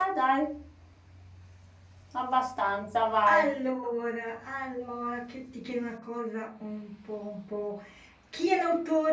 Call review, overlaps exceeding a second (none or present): none